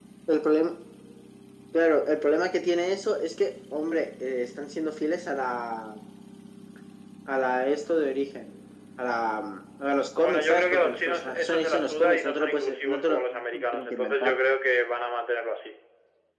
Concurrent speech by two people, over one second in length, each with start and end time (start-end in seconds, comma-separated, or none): 10.2-14.3